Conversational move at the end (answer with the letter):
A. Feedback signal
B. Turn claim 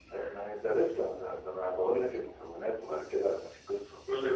A